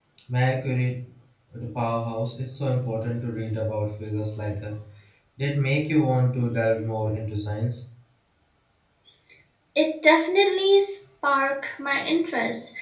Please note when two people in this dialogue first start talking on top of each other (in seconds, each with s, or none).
none